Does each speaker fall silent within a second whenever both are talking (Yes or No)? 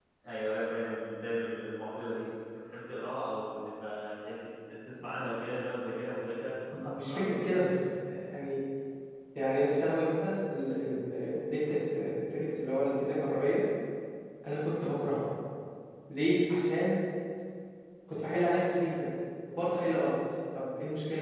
Yes